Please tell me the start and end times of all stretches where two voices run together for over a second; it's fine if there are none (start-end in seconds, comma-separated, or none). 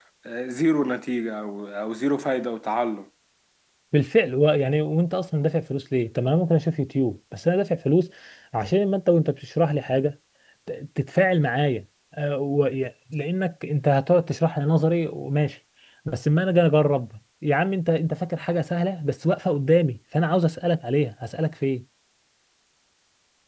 none